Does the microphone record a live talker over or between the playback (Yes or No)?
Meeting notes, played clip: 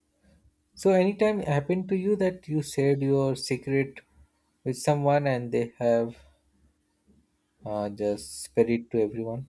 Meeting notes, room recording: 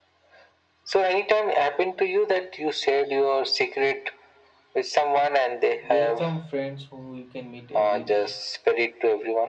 Yes